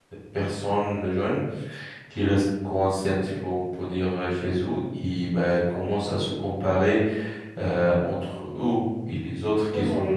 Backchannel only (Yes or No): No